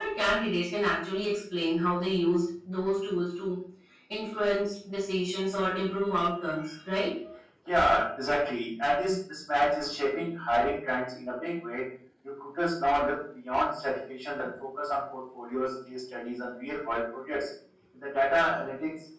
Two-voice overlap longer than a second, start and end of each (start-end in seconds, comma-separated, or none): none